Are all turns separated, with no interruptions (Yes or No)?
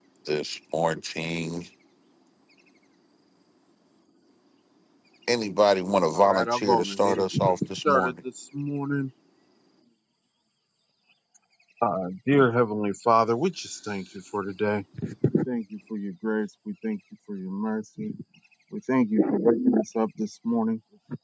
No